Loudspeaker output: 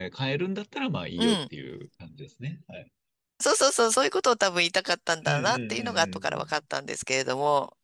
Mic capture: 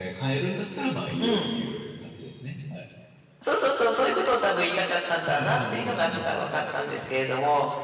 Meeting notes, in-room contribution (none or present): present